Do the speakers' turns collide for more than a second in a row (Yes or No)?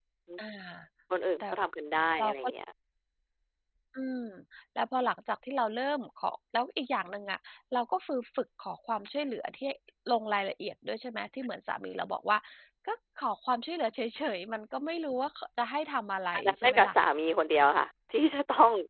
No